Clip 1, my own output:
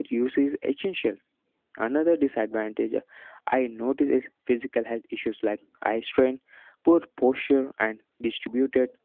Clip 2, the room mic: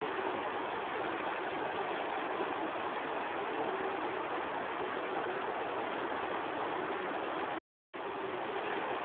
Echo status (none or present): none